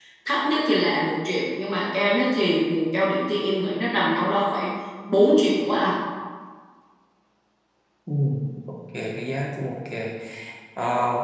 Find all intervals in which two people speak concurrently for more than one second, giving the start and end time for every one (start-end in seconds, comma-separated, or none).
none